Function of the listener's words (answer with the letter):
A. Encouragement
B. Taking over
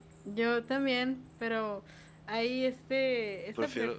A